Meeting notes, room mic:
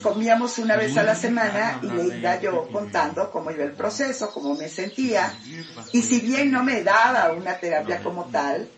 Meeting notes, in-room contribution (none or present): present